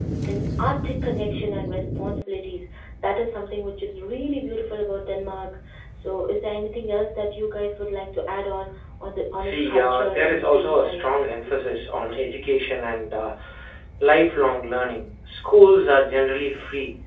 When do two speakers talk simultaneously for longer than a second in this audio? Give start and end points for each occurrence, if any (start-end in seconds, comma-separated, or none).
9.4-11.0